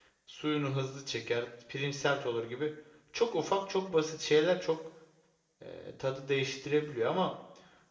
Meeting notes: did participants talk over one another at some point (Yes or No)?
No